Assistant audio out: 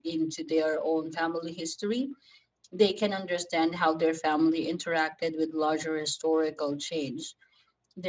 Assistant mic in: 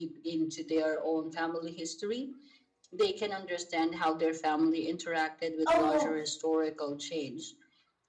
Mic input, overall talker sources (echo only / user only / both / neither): both